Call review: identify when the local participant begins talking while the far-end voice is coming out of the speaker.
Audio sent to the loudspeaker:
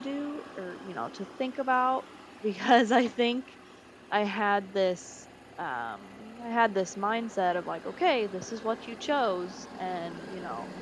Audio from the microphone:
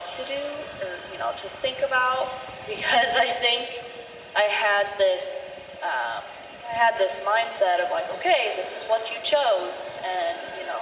none

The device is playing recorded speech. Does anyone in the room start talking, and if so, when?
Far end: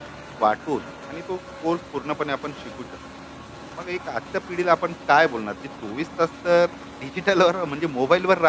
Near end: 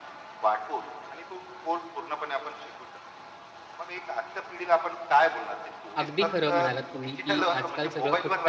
6.0 s

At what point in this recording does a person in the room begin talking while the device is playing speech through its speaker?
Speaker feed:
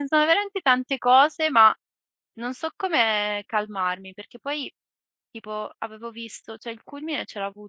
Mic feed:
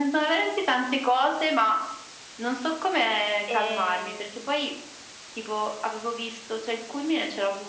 3.4 s

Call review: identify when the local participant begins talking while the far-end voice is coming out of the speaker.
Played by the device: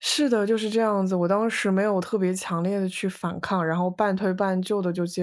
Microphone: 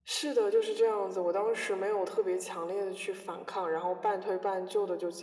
none

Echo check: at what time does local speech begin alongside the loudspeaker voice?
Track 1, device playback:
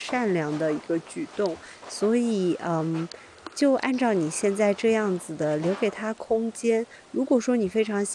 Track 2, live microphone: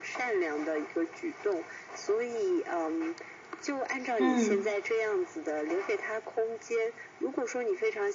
4.2 s

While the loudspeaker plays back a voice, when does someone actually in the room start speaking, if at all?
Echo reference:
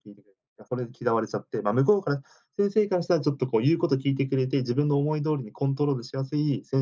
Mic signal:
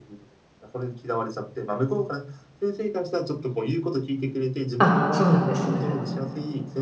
4.8 s

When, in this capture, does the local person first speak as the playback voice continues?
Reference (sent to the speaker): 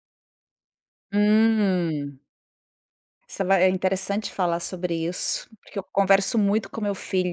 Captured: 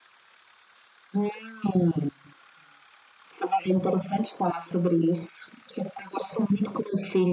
none

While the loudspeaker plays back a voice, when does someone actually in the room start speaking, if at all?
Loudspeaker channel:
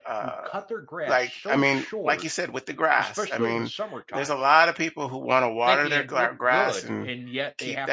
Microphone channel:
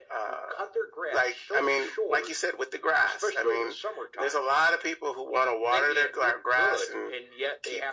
none

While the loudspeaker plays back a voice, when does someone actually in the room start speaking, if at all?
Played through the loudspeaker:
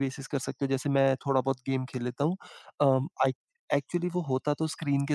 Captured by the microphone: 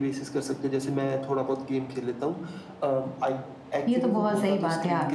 3.9 s

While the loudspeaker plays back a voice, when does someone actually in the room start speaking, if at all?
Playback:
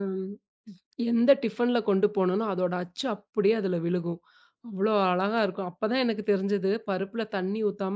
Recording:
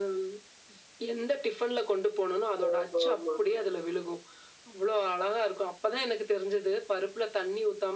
2.6 s

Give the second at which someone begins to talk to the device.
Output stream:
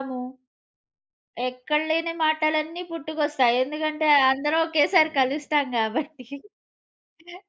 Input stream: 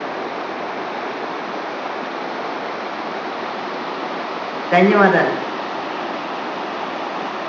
4.8 s

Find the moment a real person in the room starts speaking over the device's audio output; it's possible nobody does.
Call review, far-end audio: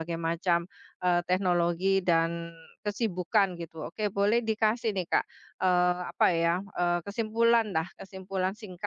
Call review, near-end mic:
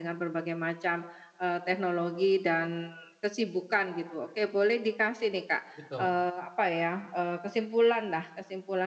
5.7 s

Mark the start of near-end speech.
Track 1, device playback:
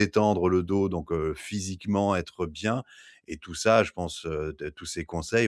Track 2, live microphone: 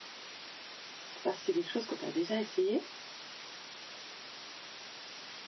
1.0 s

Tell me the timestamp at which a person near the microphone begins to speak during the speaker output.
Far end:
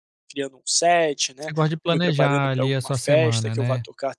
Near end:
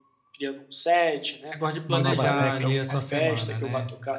1.9 s

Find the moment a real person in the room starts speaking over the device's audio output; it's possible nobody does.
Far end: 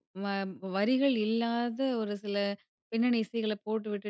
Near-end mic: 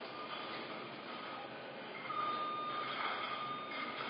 none

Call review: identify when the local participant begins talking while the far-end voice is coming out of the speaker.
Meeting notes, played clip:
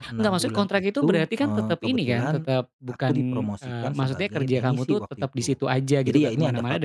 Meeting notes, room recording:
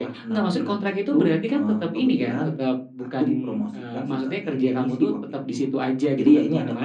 none

